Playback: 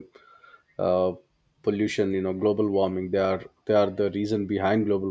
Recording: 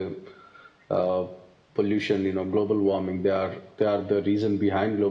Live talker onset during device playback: none

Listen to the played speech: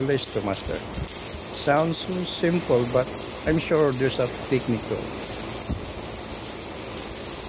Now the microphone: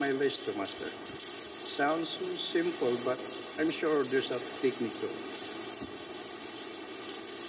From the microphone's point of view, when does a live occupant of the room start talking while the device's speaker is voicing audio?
none

